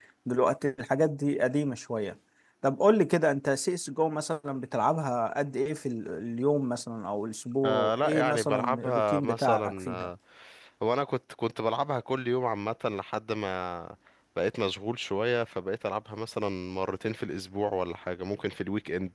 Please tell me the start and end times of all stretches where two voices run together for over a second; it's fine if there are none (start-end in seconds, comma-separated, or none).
7.6-10.1